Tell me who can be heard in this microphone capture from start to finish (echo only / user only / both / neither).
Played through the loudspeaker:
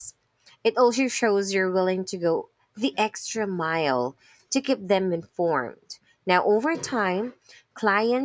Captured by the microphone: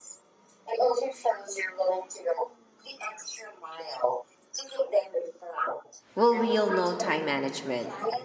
both